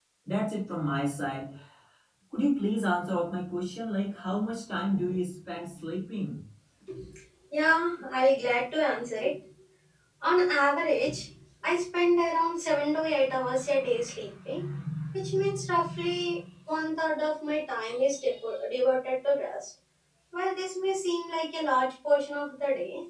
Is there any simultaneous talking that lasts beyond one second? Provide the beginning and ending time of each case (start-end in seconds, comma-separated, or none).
none